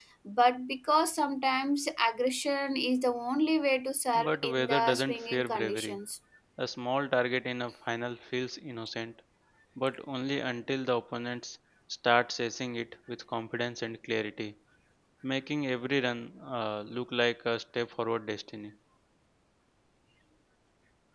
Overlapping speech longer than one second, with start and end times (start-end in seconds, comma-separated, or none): 4.2-6.0